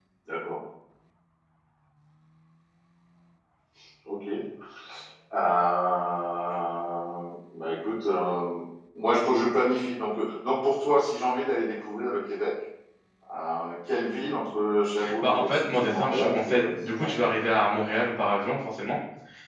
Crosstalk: present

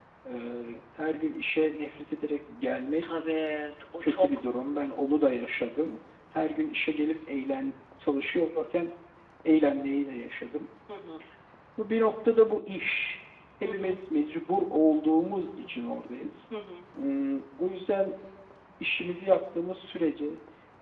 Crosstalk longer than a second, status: none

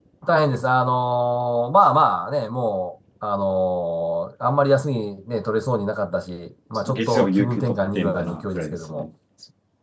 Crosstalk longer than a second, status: present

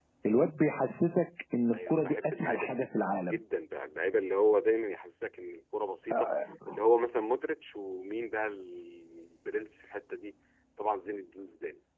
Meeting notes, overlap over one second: present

